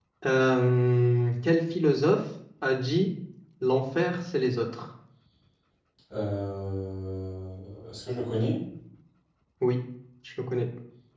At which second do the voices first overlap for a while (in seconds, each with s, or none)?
none